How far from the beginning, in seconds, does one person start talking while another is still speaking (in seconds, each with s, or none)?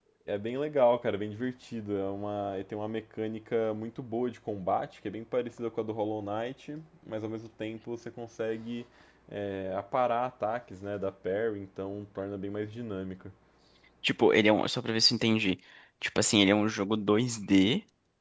none